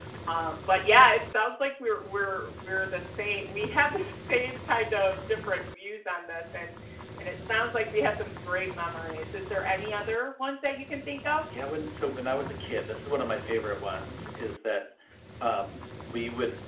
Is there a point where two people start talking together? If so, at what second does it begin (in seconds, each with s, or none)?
none